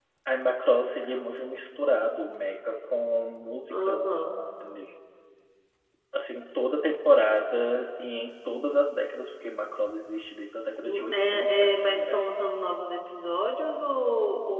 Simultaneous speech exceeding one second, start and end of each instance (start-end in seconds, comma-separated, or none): 10.8-12.2